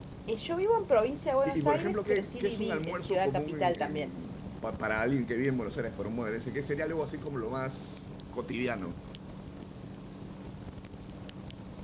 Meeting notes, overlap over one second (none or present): present